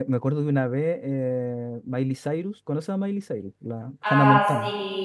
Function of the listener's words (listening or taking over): taking over